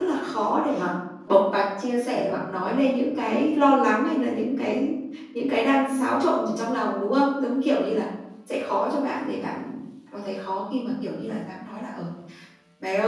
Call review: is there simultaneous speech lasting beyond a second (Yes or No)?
No